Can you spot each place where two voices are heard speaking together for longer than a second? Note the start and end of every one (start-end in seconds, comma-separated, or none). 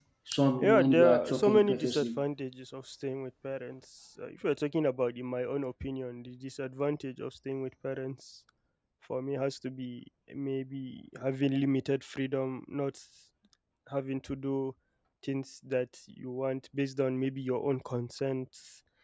0.6-2.2